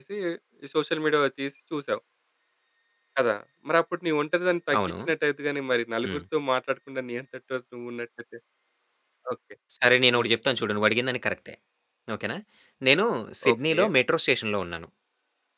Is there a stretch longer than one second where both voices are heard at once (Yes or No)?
No